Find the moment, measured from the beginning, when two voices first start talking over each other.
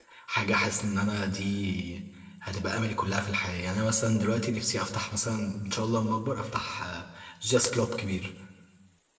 none

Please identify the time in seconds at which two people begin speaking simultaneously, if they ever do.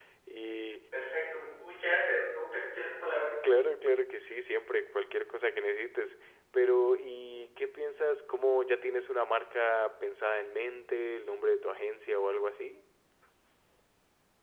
none

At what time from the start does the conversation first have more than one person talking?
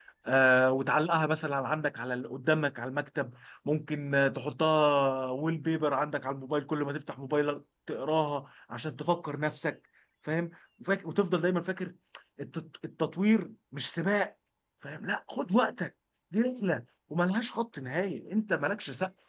none

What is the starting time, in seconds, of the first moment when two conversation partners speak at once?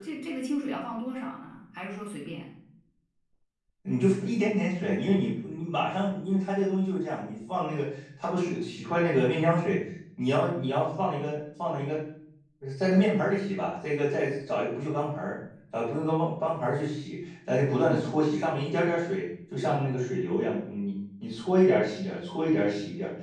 none

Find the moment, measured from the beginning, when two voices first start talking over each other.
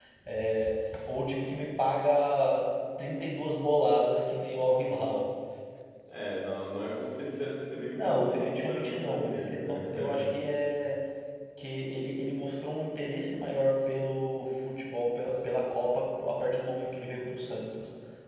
7.9 s

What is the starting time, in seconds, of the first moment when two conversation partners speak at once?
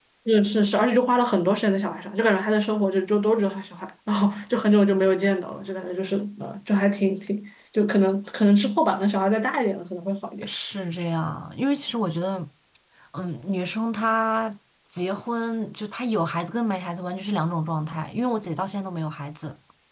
none

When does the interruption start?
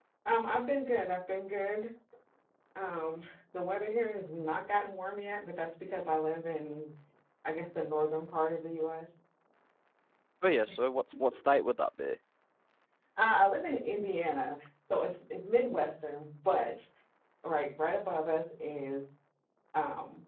none

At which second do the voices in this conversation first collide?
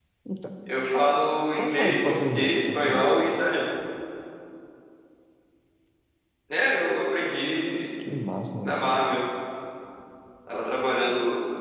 1.5 s

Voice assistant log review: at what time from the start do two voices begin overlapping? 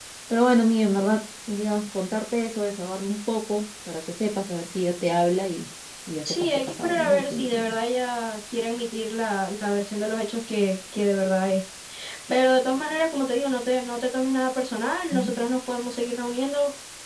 6.2 s

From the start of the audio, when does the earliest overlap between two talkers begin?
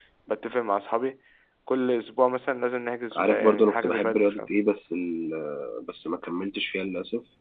3.1 s

